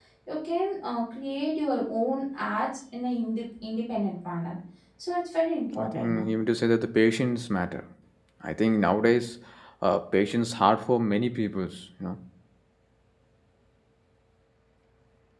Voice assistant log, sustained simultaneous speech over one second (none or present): none